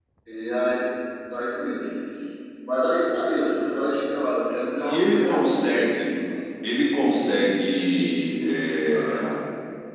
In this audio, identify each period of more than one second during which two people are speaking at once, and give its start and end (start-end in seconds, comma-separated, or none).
4.8-6.1